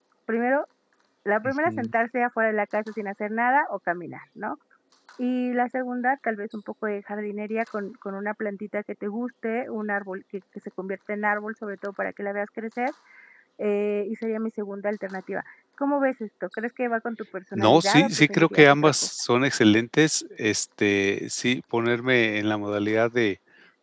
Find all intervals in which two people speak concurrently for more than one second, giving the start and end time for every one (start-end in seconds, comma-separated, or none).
17.6-18.9